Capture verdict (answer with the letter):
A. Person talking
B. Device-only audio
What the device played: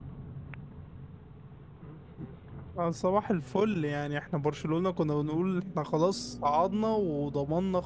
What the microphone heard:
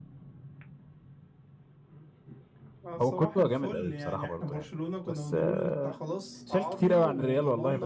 A